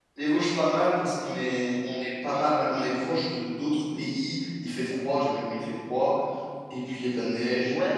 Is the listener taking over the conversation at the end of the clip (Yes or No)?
Yes